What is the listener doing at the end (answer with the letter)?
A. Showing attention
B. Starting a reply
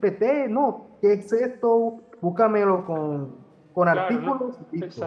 B